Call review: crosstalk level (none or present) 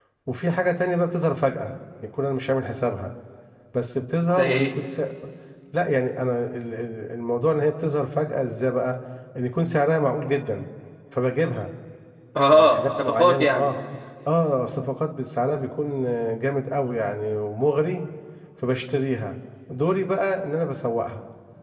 present